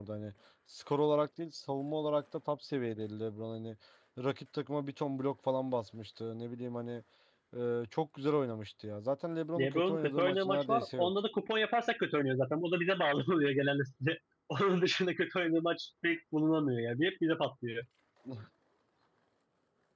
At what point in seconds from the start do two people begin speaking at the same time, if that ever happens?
9.6 s

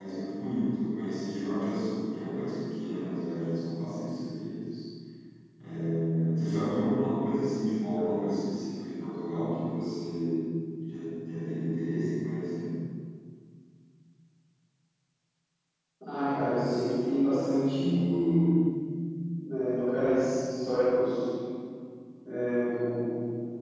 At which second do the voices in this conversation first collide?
none

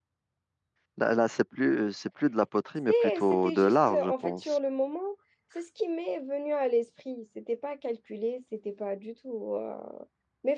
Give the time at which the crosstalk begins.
2.9 s

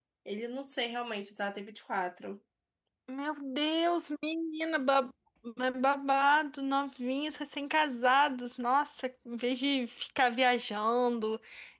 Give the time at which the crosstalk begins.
none

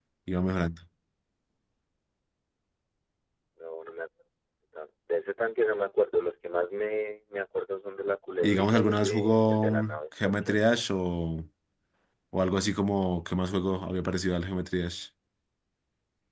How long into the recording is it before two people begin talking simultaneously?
8.4 s

